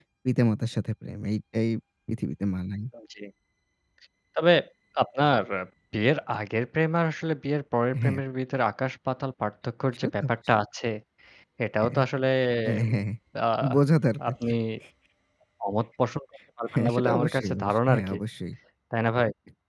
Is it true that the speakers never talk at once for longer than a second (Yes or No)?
No